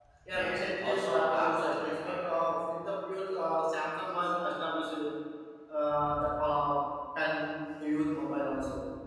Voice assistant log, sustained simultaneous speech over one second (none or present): present